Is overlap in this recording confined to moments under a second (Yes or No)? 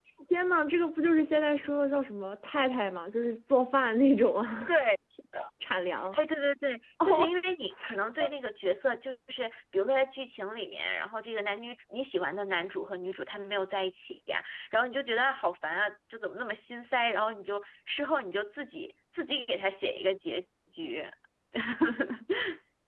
Yes